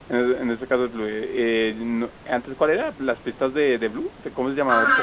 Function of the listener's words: taking over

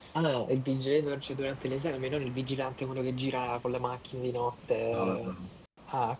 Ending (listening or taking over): listening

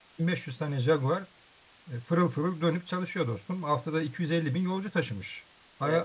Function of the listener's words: listening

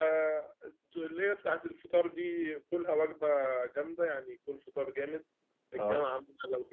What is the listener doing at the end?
listening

